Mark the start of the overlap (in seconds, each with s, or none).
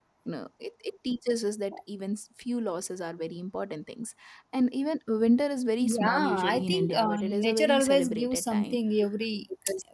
5.8 s